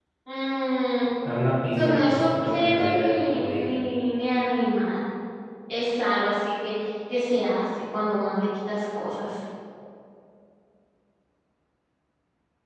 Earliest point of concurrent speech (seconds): 1.7 s

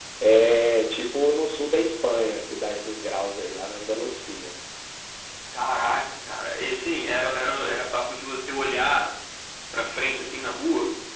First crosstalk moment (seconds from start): none

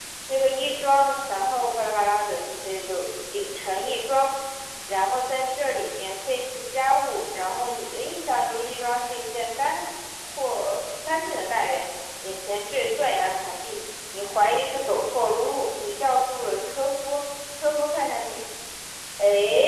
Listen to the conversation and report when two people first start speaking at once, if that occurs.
none

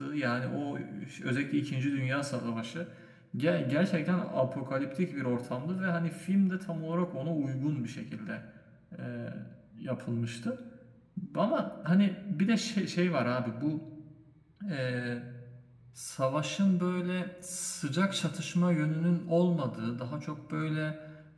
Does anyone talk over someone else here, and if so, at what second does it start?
none

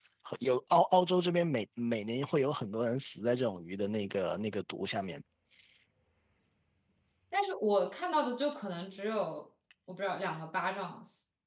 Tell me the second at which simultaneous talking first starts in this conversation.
none

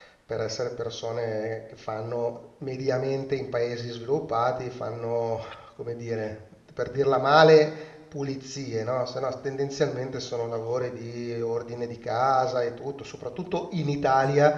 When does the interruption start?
none

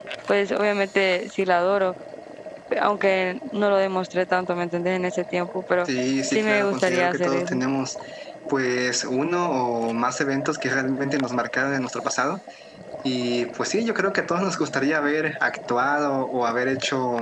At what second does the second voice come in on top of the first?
6.3 s

